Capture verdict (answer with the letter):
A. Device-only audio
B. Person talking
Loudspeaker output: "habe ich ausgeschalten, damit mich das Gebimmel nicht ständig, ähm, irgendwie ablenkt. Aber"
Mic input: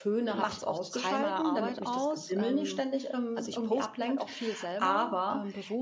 B